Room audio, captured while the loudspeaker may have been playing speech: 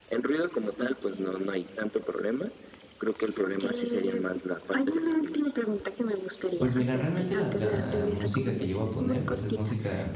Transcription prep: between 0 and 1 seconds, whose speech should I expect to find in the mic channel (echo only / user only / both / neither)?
echo only